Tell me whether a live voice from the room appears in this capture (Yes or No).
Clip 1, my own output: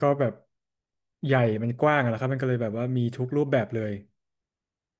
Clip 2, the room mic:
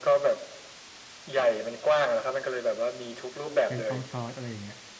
Yes